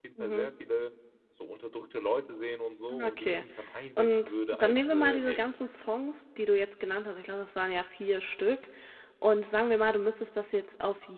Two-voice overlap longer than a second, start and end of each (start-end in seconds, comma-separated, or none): 4.0-5.5